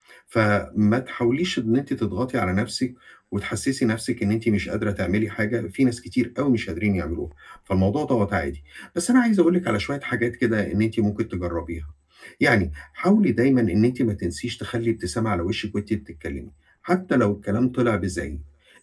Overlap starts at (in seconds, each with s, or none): none